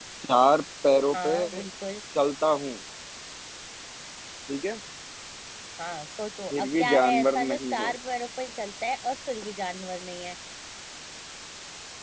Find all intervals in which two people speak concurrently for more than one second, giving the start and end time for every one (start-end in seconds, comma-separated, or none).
6.5-8.0